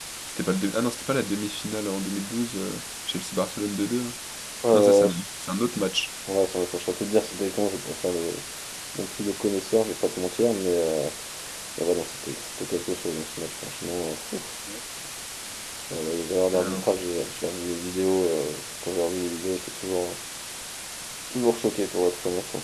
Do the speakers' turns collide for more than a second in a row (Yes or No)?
No